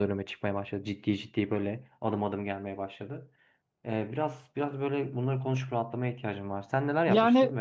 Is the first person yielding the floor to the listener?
Yes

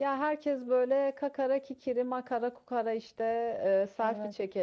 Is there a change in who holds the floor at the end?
No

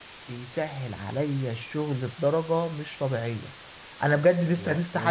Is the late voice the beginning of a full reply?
No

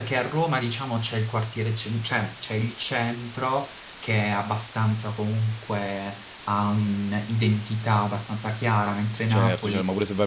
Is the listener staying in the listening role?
No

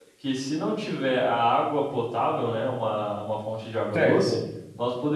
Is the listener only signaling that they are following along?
Yes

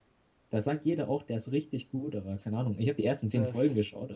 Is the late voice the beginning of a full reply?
No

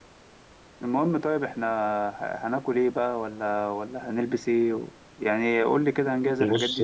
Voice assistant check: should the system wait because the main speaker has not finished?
No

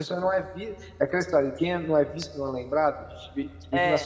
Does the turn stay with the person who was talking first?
Yes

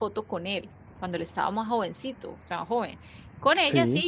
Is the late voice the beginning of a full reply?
No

